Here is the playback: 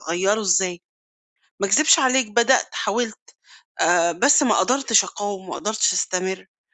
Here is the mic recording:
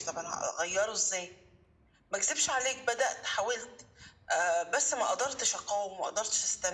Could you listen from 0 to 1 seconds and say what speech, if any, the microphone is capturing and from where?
echo only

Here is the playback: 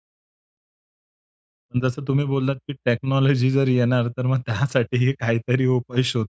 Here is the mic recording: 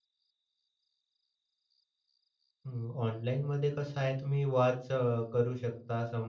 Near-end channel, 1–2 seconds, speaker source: neither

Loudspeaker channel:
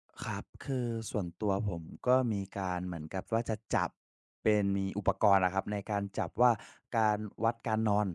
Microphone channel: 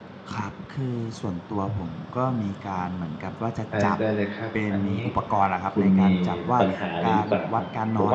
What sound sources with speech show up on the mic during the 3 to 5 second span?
both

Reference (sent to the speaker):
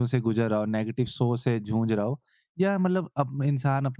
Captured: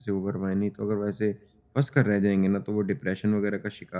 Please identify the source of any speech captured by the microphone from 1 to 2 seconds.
user only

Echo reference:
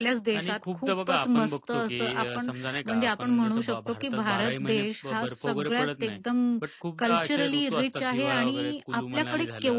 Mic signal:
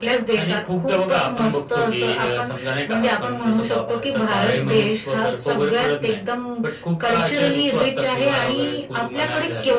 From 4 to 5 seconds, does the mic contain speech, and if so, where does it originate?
both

